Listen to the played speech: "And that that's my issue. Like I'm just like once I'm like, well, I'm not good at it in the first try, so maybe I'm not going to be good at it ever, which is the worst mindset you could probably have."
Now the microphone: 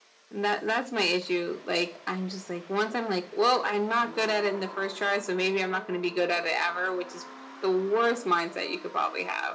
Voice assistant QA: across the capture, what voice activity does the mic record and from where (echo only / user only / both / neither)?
echo only